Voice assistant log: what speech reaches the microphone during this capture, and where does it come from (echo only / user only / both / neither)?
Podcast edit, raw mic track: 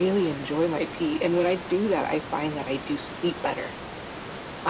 echo only